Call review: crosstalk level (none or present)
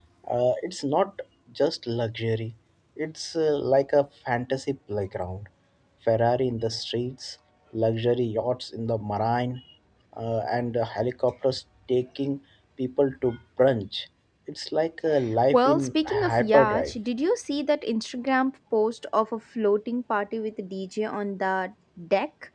present